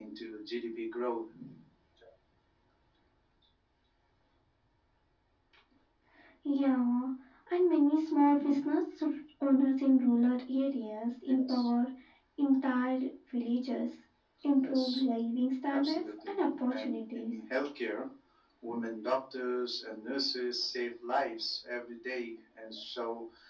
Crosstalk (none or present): present